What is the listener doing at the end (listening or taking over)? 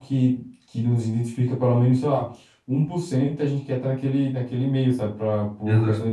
listening